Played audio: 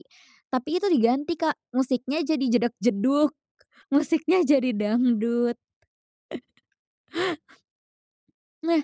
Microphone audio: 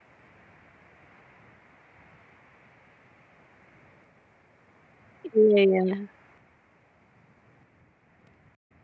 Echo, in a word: none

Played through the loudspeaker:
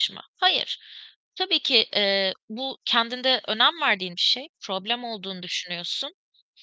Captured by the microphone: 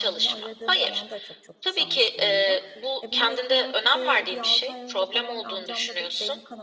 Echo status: present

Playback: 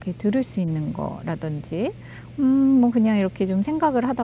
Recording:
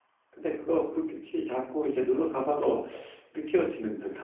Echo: none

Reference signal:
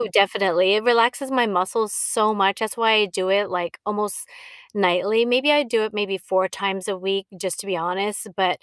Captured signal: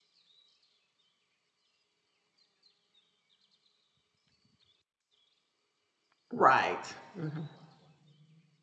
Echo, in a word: none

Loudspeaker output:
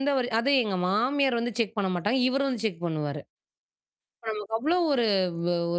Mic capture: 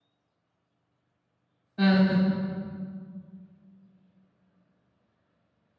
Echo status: none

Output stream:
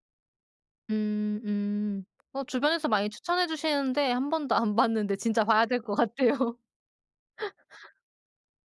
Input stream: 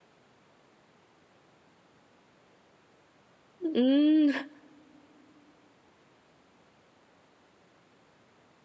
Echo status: none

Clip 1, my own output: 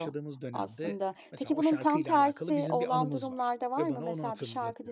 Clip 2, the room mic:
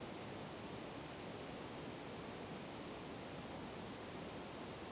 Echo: none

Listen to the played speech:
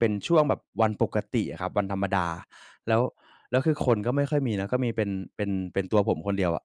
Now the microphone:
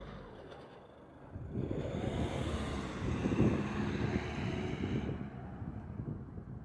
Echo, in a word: none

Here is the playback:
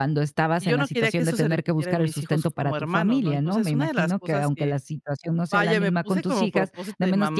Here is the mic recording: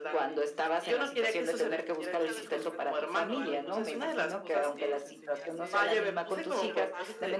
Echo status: present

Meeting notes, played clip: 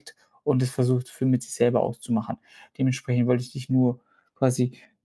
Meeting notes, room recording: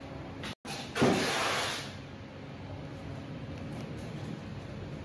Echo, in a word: none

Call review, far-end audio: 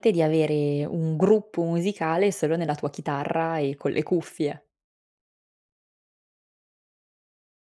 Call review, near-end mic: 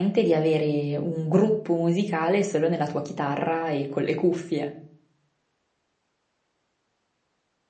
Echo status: present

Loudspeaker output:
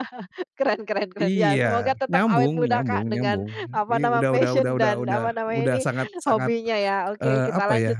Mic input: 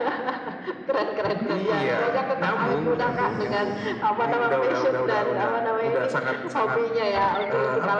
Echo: present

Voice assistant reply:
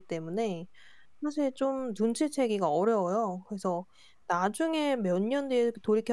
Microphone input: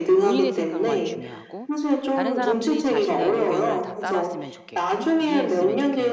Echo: present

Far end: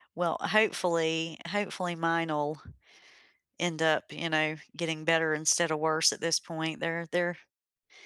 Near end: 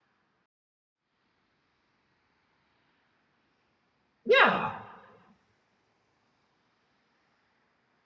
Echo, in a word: none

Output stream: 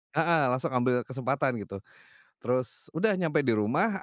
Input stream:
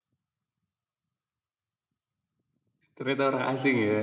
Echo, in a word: none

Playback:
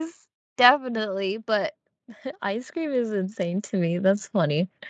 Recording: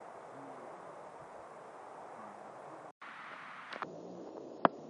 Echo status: none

